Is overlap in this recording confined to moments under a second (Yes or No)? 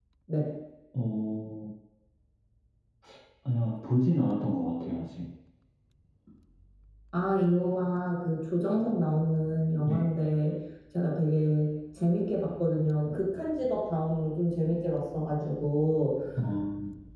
Yes